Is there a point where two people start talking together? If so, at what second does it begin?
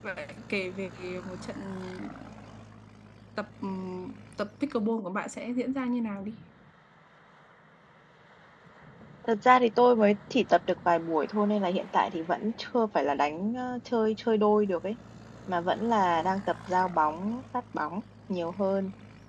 none

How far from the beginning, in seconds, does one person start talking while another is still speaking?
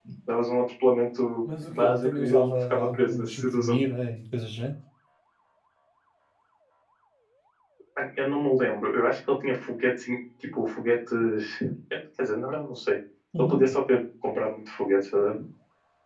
1.7 s

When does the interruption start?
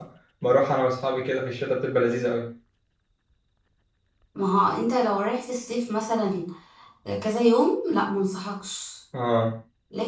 none

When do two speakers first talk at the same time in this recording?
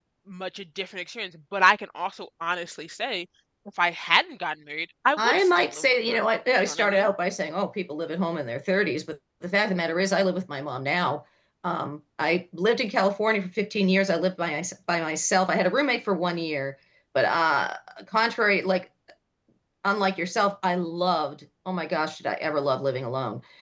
5.2 s

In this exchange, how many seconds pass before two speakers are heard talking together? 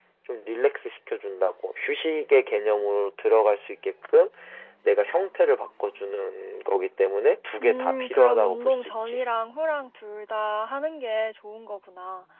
7.6 s

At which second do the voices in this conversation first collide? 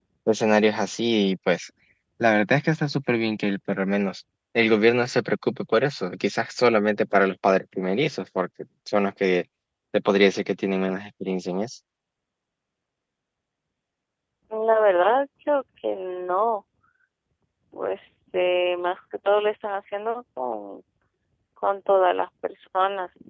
none

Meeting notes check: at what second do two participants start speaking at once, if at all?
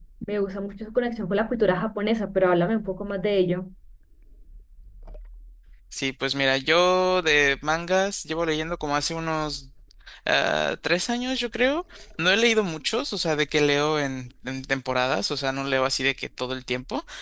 none

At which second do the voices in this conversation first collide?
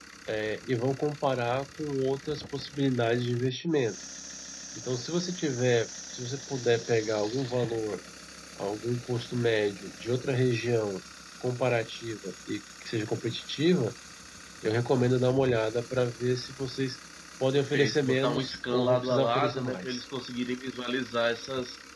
17.5 s

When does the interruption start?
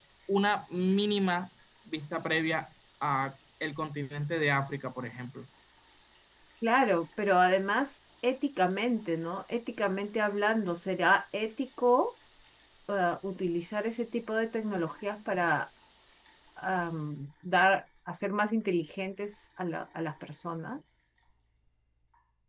none

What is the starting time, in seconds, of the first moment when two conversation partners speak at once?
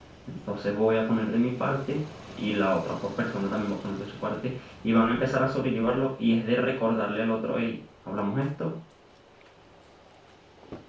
none

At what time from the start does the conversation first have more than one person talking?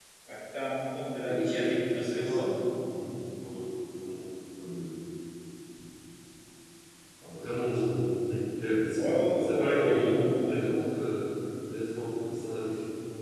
1.2 s

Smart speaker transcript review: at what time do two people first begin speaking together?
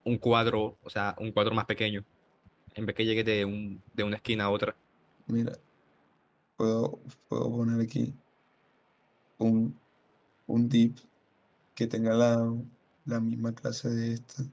none

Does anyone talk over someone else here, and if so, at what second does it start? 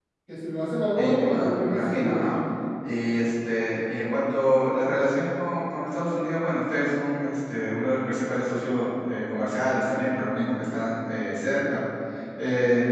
1.0 s

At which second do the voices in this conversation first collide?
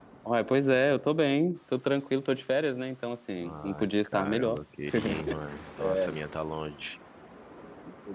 3.4 s

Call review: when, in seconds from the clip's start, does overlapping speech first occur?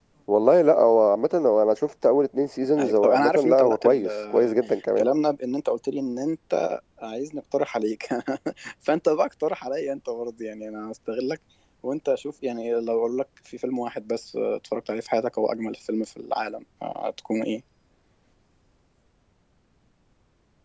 2.8 s

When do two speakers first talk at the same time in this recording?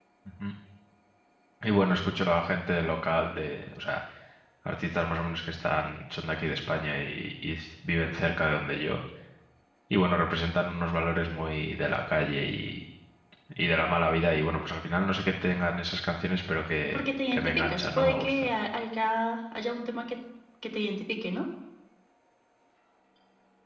16.8 s

